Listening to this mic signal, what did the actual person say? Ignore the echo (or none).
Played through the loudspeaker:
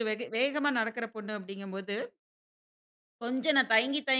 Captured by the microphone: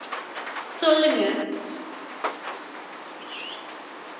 சொல்லுங்க.